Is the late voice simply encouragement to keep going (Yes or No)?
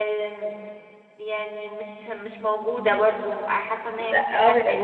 No